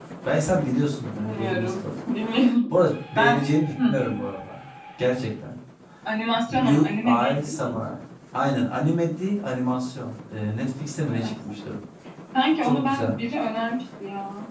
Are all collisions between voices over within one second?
No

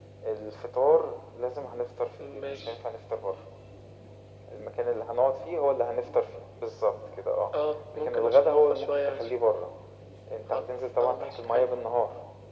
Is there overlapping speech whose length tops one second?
Yes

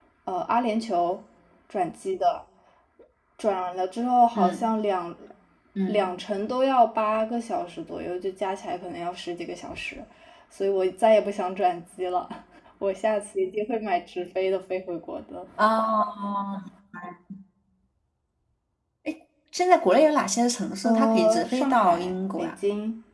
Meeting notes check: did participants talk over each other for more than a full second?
Yes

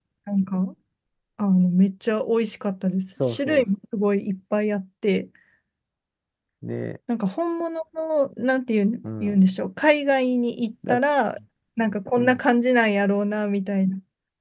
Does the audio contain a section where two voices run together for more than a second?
No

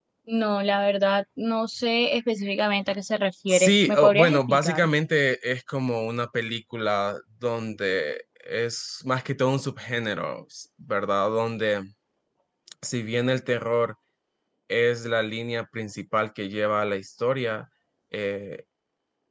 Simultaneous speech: Yes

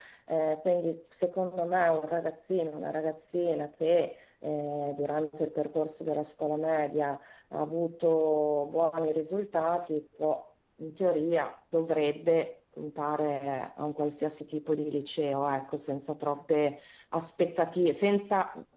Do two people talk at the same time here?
No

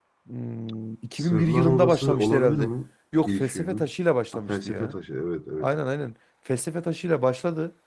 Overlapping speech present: Yes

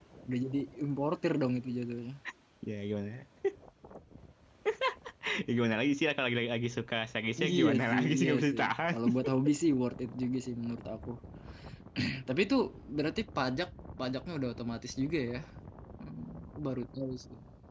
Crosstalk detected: Yes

